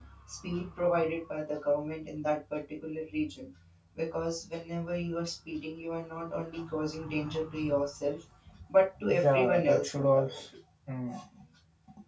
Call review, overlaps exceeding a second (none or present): present